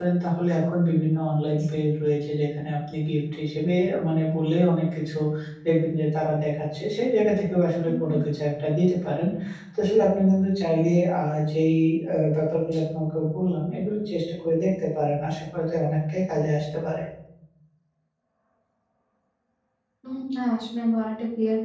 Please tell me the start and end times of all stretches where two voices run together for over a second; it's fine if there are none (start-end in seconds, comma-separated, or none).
none